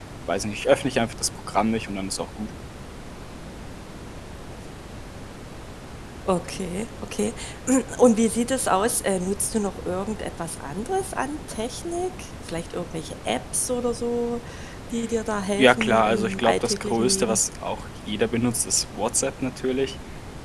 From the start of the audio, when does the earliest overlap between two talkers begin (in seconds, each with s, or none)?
15.6 s